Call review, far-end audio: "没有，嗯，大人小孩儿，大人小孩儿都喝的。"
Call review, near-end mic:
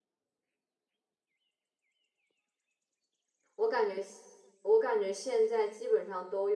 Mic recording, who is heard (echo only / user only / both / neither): user only